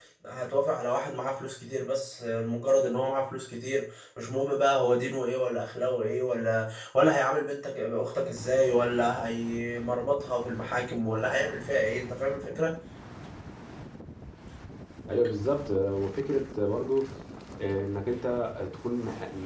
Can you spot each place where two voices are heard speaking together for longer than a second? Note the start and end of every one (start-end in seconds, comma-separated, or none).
none